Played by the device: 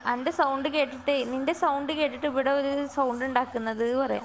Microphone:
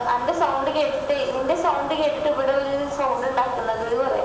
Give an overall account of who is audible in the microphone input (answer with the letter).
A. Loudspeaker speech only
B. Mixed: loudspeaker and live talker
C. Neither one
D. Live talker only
A